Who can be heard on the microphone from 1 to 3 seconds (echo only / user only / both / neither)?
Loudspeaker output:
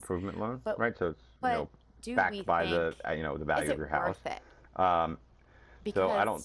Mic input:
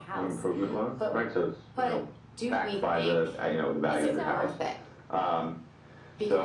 echo only